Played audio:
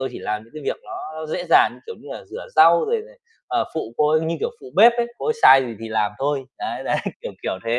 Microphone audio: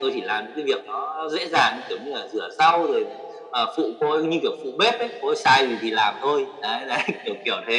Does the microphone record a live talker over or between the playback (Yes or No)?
No